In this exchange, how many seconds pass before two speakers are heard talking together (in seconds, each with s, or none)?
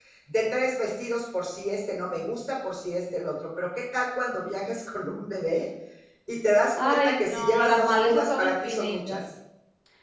6.8 s